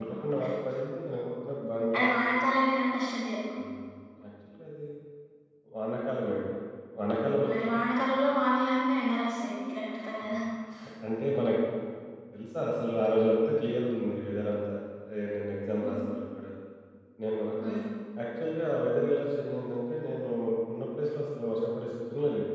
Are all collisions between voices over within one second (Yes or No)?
Yes